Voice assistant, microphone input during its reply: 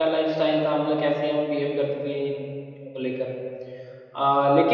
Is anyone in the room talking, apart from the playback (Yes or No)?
Yes